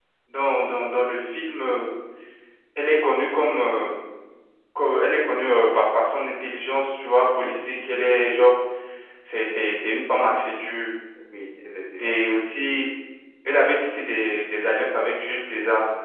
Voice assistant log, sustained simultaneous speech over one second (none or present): present